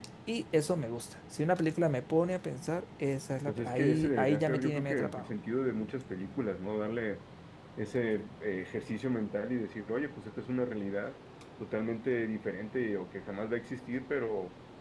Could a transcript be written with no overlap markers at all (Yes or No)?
No